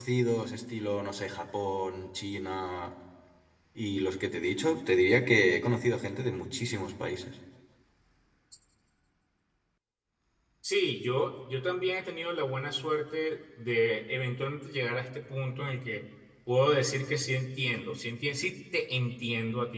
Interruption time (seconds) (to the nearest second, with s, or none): none